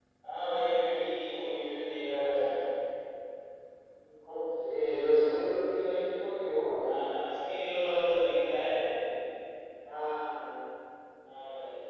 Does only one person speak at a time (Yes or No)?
Yes